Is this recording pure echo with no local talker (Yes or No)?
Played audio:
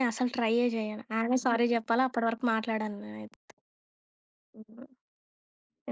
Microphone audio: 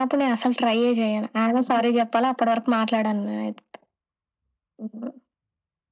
Yes